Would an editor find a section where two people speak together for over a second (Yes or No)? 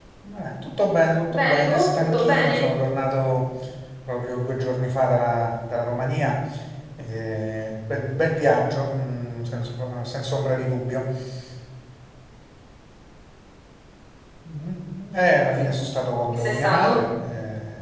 Yes